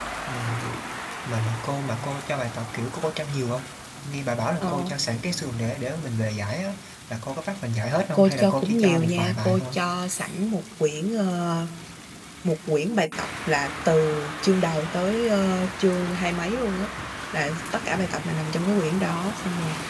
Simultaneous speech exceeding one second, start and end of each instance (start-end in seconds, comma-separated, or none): 8.1-9.8